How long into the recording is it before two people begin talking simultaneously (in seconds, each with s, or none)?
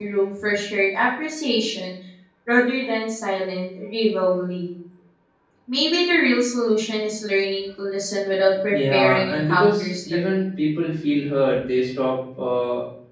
8.7 s